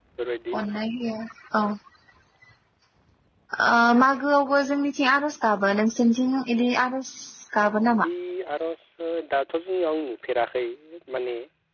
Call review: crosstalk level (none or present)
none